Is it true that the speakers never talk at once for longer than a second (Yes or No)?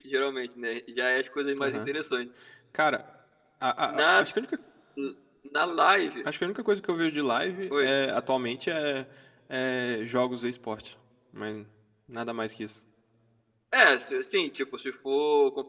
Yes